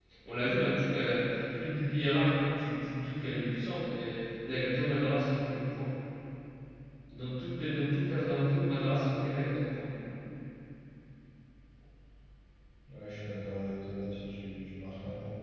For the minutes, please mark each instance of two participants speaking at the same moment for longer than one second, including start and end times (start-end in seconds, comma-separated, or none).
none